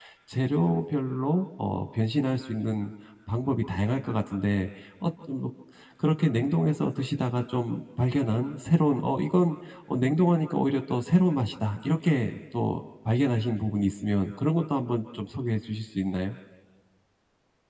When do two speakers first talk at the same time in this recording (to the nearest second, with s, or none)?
none